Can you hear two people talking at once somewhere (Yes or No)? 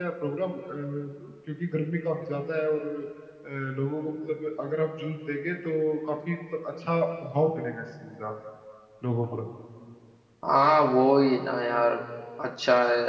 No